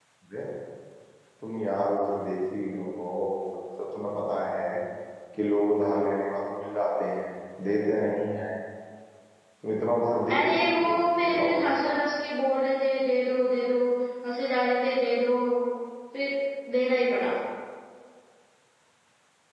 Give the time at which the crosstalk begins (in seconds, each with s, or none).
10.3 s